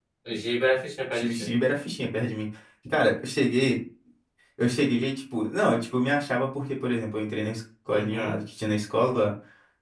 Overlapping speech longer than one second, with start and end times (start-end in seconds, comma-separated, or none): none